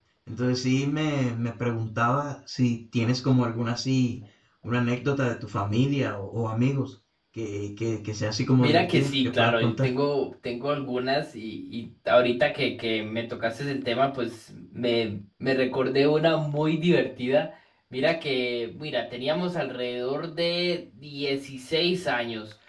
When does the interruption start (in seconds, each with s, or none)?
8.6 s